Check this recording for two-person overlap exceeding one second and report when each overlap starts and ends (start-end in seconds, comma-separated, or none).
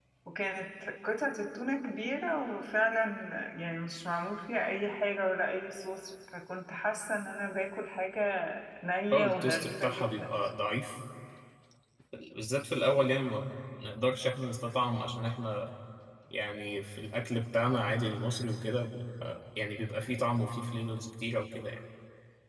9.1-10.3